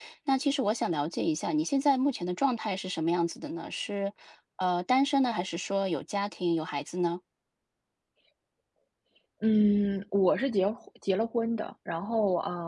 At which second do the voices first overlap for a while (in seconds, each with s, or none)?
none